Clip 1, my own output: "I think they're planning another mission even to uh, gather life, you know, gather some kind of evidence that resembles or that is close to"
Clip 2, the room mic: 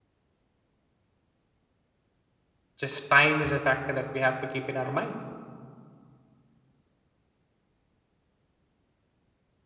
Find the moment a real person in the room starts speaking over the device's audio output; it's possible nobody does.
2.7 s

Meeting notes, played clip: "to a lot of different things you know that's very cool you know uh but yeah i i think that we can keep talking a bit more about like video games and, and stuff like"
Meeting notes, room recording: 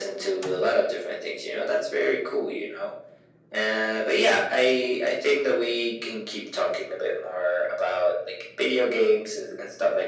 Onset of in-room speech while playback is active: none

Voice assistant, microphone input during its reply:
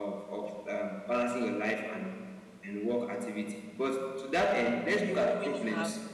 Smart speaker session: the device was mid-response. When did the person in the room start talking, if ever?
5.0 s

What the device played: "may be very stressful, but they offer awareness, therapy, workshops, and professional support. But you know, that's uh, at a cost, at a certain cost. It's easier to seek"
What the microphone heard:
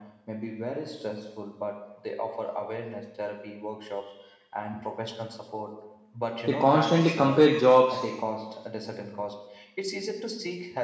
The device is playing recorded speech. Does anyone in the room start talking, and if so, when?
6.4 s

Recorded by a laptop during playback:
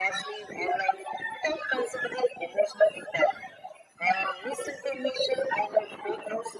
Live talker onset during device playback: none

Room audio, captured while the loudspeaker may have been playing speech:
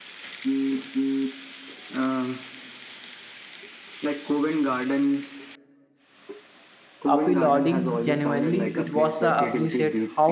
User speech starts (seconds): 7.1 s

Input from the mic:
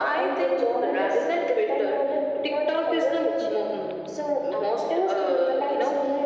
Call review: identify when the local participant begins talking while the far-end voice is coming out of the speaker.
none

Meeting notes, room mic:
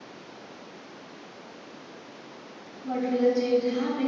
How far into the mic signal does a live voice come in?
2.8 s

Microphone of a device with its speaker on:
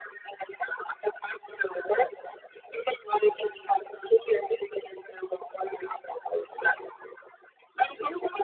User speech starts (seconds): none

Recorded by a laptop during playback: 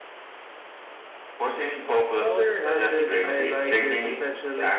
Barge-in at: 2.2 s

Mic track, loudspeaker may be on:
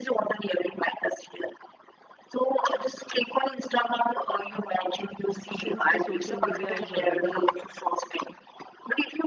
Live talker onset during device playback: 5.5 s

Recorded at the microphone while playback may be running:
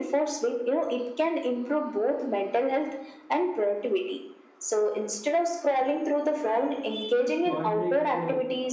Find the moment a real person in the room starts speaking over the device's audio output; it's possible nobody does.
7.2 s

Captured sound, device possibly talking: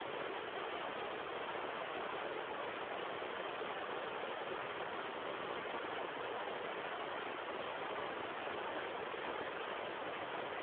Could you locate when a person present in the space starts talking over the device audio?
none

